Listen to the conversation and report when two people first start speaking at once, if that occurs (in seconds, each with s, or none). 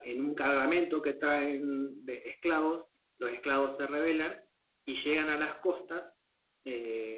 none